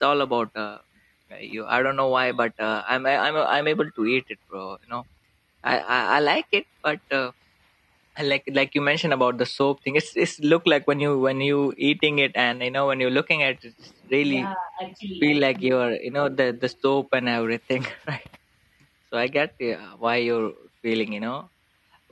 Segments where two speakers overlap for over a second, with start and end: none

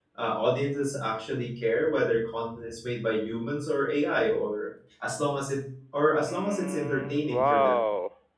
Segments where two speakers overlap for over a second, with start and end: 6.2-7.8

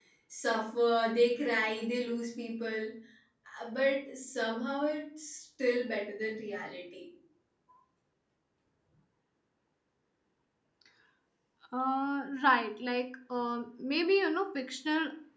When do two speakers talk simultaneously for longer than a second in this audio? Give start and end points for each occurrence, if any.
none

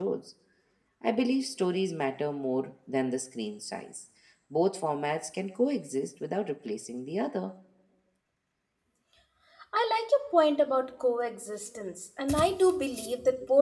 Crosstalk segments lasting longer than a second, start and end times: none

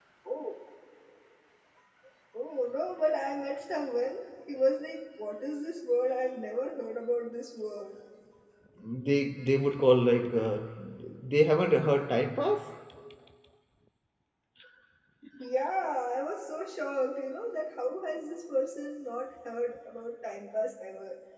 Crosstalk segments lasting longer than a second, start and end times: none

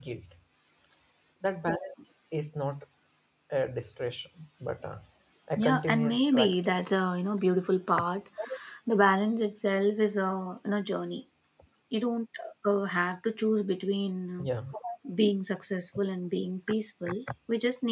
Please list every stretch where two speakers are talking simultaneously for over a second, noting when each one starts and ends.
5.6-6.9

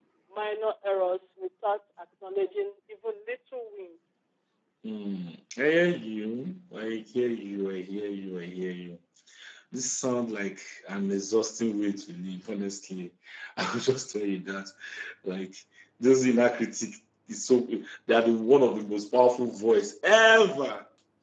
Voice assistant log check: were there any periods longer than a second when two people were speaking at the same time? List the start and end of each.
none

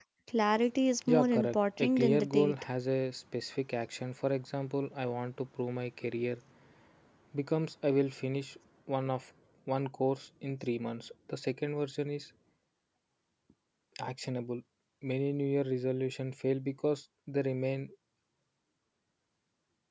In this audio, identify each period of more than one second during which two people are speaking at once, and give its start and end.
1.1-2.5

